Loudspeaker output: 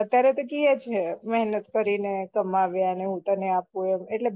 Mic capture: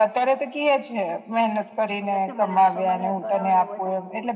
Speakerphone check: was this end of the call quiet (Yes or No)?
No